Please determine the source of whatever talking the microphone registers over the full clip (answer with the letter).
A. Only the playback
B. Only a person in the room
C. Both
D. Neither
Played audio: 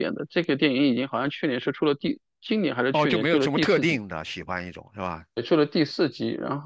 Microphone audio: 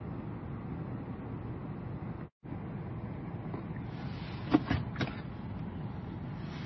D